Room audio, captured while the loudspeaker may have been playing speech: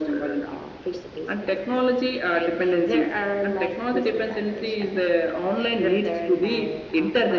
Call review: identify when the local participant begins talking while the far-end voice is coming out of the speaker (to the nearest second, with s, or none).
none